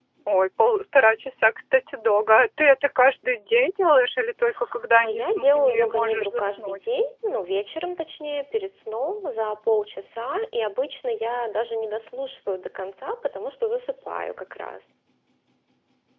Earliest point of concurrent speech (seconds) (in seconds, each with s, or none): 4.9 s